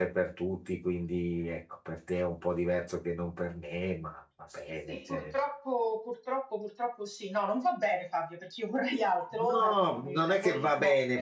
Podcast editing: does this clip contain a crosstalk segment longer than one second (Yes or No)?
Yes